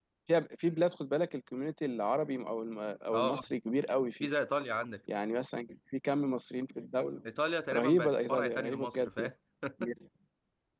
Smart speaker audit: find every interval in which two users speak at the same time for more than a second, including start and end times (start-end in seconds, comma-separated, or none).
7.7-9.3